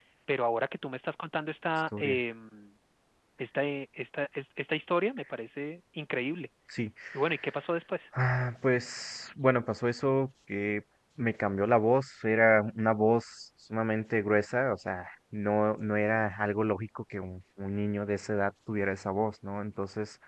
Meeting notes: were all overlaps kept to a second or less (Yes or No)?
Yes